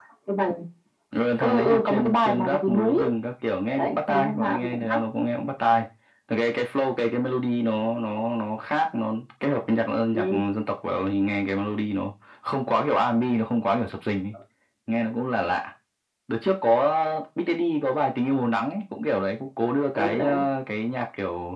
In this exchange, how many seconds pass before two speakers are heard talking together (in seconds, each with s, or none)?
1.4 s